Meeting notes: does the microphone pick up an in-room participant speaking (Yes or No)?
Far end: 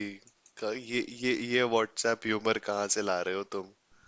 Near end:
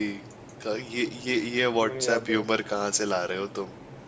Yes